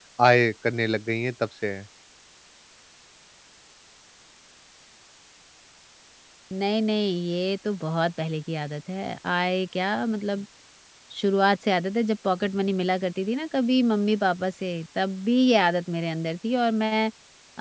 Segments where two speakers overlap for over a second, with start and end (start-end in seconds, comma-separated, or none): none